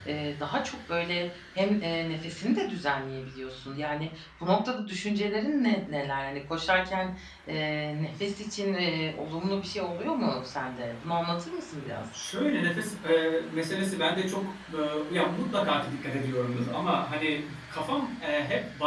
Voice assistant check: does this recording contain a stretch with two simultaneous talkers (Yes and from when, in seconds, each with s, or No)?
No